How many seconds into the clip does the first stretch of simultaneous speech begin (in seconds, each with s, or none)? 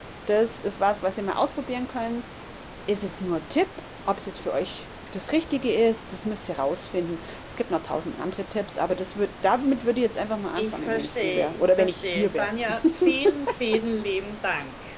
10.6 s